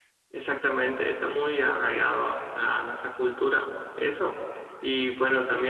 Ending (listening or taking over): listening